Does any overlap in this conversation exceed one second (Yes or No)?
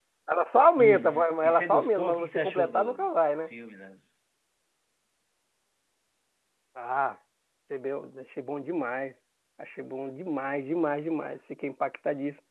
Yes